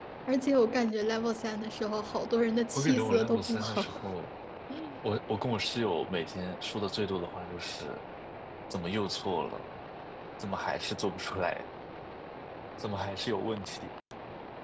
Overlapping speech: Yes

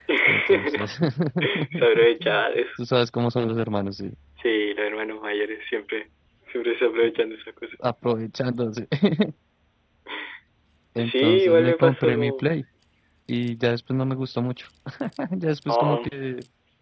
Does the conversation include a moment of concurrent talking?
Yes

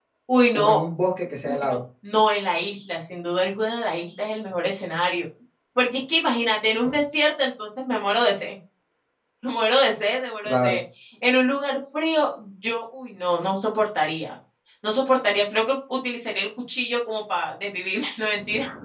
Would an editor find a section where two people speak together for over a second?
No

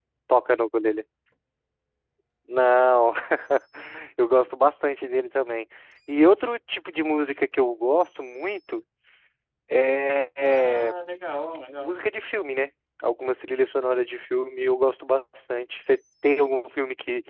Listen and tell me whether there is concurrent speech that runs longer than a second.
No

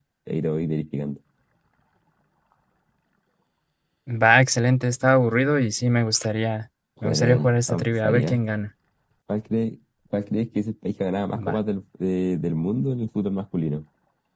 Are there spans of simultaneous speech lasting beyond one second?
Yes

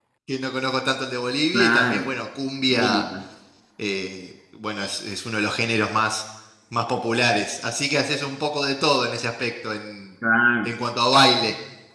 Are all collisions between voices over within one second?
Yes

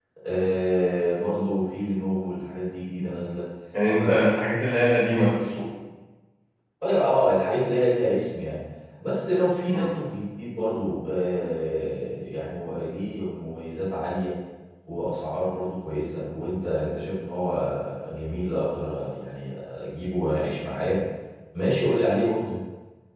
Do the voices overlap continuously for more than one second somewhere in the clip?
No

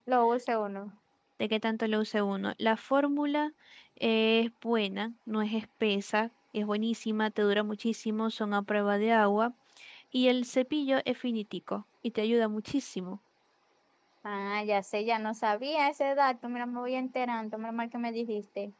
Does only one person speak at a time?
Yes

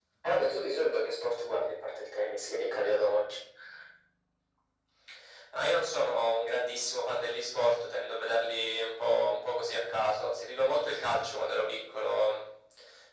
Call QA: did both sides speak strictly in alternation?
Yes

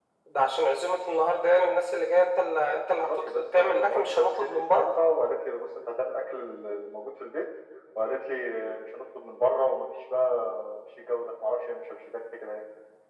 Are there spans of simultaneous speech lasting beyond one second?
Yes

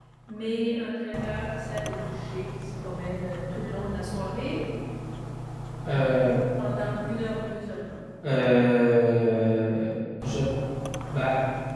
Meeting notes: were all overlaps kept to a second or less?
Yes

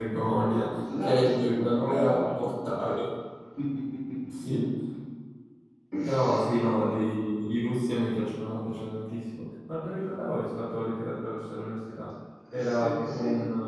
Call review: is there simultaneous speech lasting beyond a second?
Yes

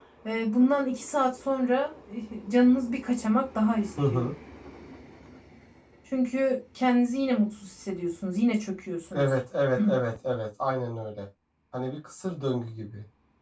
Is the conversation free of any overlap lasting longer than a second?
Yes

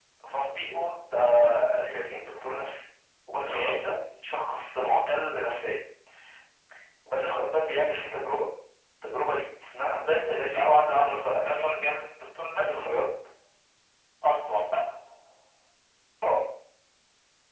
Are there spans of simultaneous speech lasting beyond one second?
Yes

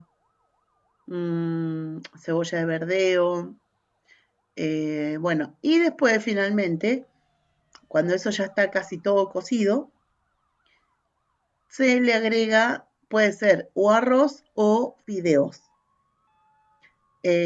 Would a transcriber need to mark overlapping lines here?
No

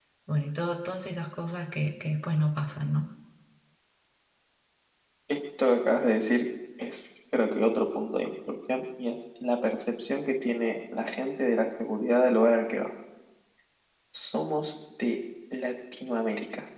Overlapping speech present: No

